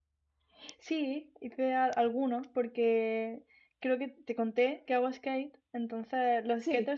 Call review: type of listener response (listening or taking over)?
listening